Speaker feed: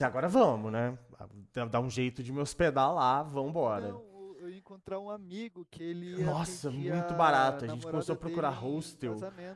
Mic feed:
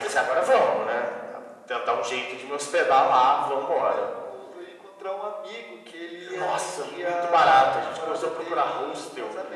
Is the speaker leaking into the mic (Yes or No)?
Yes